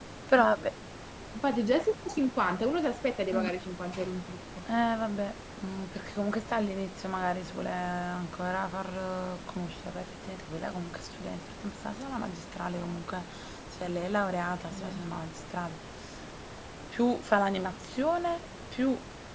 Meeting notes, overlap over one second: none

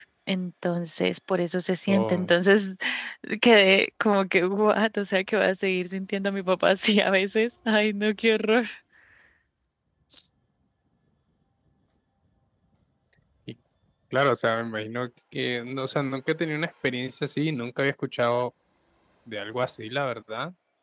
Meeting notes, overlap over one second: none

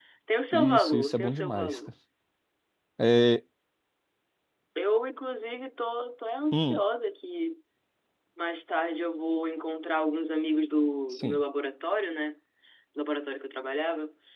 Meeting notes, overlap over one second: present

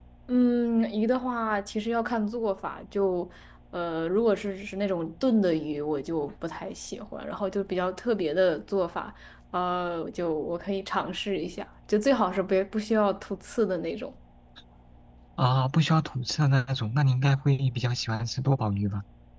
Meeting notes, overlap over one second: none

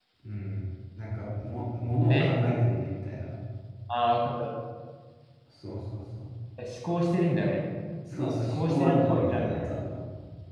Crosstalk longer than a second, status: present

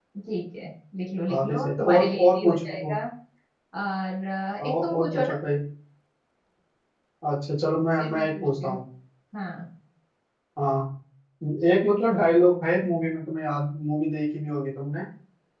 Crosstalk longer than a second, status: present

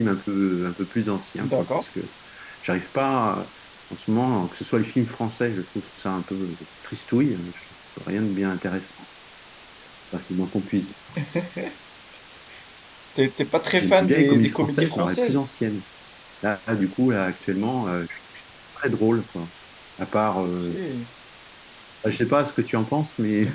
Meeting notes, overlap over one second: present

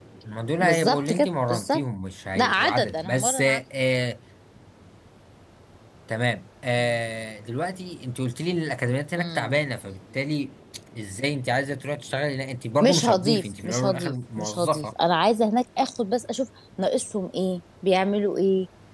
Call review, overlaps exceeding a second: present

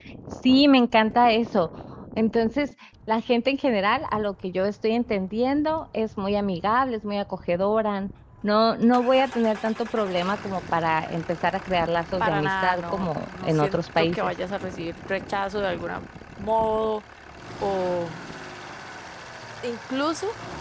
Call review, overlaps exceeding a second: present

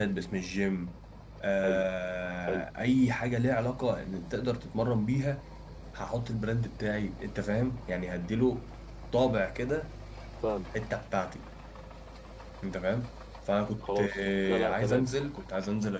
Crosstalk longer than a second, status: present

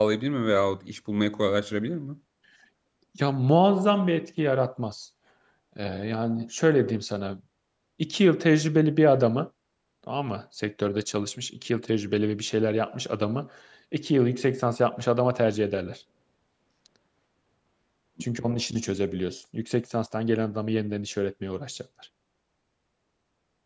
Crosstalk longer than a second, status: none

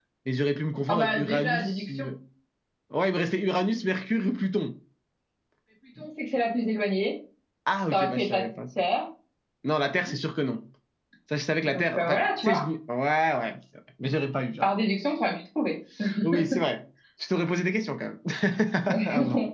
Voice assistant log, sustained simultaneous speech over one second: present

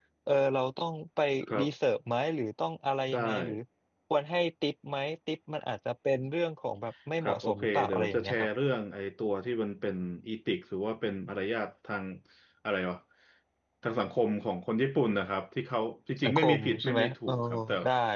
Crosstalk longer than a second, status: present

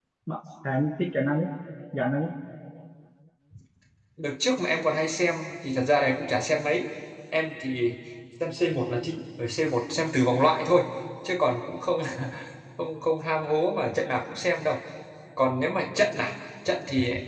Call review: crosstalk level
none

